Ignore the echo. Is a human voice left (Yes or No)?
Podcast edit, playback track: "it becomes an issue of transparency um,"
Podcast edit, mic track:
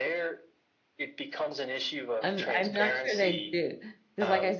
Yes